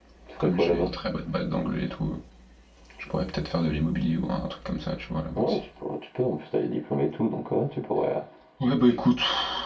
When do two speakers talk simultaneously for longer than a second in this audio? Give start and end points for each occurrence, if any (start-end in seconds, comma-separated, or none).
none